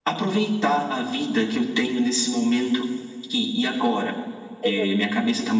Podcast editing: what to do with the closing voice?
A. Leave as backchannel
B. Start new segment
A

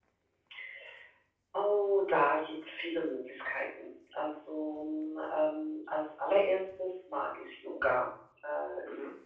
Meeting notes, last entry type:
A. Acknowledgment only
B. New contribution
A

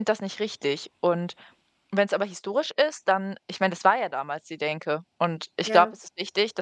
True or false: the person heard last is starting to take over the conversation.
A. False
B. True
A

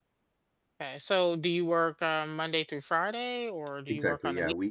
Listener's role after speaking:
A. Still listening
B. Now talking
B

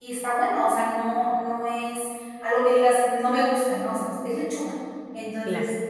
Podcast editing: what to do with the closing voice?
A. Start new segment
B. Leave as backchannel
B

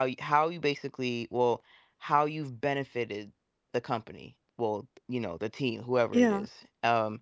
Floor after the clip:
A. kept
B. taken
A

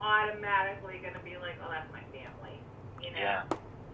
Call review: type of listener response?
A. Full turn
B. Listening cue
A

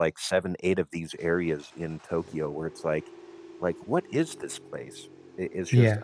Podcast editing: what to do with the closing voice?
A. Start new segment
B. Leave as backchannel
B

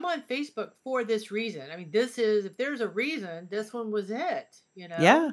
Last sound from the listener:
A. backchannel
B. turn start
B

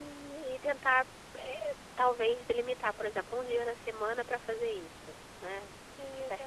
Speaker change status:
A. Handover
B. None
A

